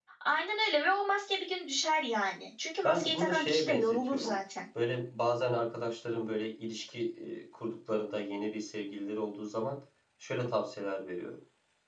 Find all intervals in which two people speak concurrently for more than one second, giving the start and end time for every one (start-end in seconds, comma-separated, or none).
2.8-4.3